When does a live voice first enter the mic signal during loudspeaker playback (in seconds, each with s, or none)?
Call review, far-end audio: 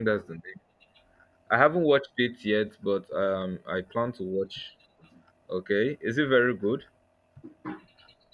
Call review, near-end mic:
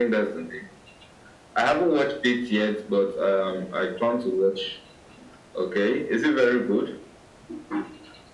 none